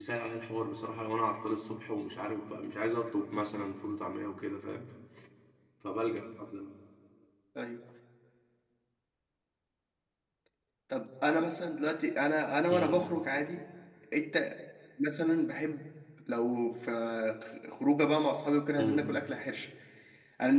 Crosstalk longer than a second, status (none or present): none